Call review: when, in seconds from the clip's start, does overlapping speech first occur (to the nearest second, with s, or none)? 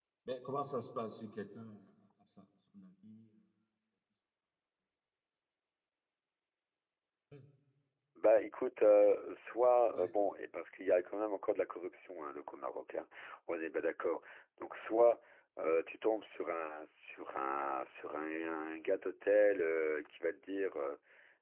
none